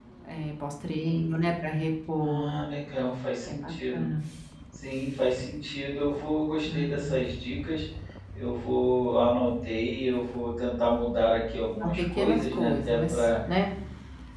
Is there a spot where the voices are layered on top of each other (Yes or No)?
Yes